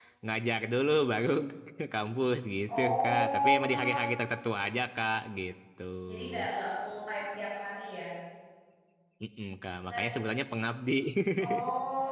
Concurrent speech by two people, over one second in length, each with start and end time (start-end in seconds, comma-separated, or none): 2.7-4.0